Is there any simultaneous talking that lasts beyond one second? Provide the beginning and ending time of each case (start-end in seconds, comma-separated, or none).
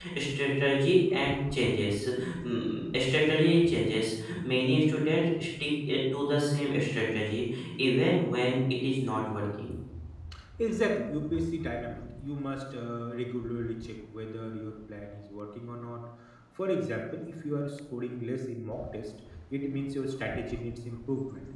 none